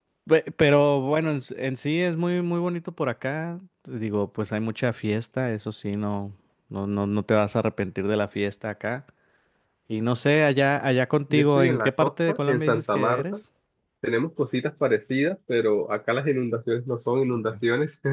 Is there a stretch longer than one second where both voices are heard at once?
Yes, from 11.3 s

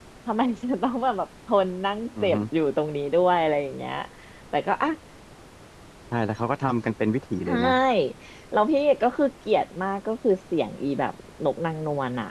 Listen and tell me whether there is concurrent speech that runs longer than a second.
No

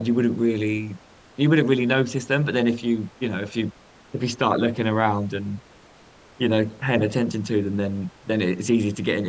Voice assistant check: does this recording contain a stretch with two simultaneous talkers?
No

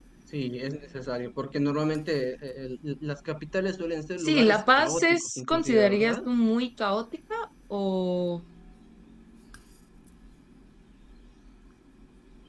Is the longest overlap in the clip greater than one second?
Yes, from 4.2 s

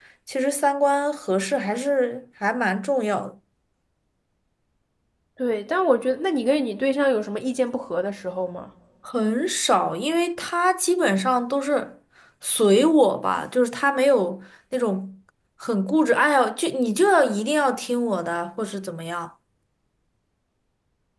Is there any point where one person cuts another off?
No

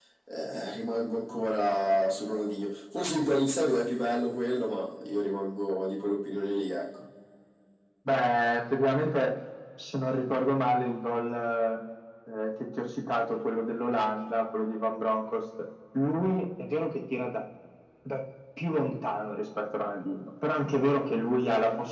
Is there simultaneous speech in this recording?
No

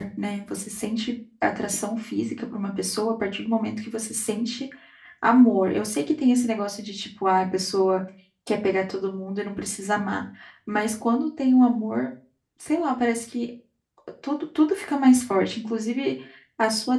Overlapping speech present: No

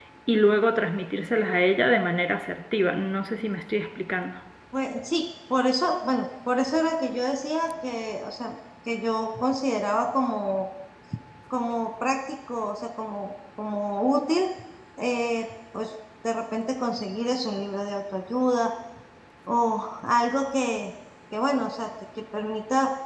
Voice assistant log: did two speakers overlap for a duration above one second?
No

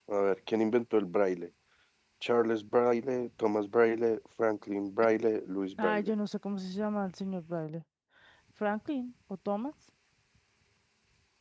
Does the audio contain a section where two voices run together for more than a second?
No

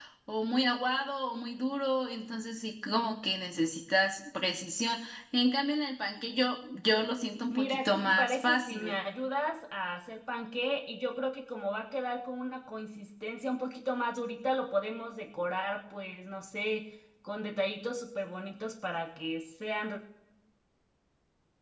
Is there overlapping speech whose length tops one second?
Yes, from 7.5 s

